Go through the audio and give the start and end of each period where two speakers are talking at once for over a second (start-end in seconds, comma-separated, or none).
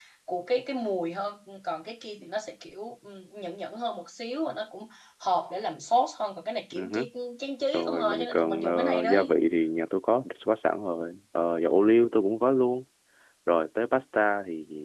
7.7-9.2